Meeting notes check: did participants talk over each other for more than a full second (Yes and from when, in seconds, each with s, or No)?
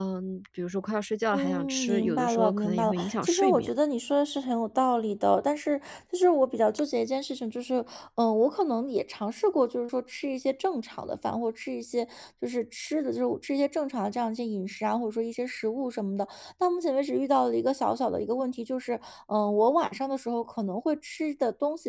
Yes, from 1.3 s